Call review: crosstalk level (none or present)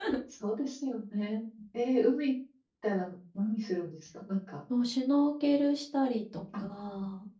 none